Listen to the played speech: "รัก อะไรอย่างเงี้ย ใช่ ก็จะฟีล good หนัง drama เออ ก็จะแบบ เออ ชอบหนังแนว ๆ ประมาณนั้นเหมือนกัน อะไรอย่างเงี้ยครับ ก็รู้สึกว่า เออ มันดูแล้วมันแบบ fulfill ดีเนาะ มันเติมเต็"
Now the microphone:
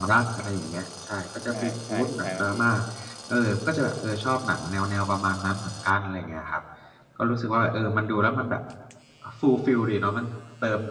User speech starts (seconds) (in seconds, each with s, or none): 1.5 s